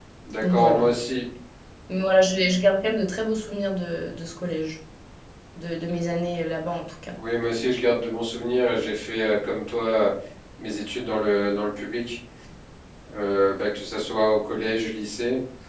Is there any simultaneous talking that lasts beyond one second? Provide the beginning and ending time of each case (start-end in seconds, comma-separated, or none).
none